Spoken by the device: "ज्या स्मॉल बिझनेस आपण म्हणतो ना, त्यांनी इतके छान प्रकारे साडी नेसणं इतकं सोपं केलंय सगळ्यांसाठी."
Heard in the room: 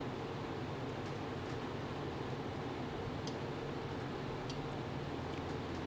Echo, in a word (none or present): none